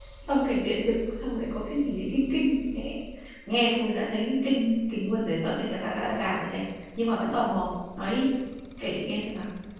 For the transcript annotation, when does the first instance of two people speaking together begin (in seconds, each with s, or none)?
none